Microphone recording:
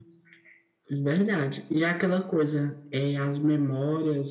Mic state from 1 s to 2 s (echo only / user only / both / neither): echo only